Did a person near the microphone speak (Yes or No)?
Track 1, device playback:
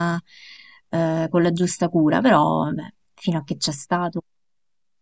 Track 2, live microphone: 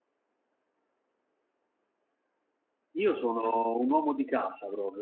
Yes